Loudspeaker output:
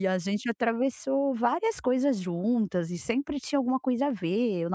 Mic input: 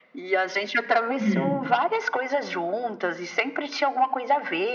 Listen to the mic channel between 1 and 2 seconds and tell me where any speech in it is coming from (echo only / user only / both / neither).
both